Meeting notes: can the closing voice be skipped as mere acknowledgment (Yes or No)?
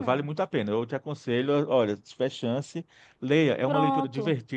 Yes